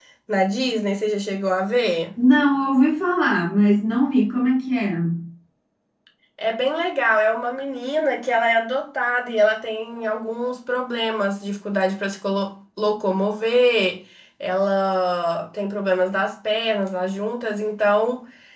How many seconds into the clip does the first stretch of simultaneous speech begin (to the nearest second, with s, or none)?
none